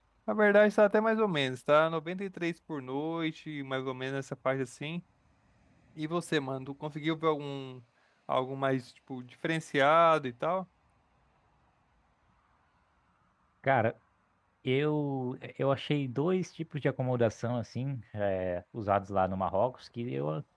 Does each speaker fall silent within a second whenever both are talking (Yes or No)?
Yes